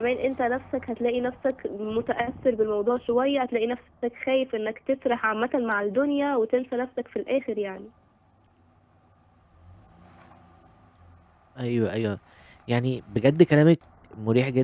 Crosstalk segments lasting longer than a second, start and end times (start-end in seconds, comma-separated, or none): none